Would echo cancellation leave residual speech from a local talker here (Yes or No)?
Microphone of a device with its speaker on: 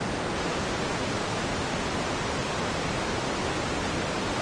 No